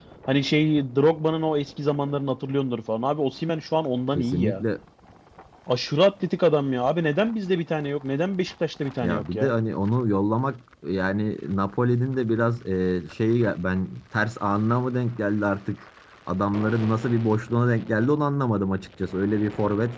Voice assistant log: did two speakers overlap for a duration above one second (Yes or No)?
No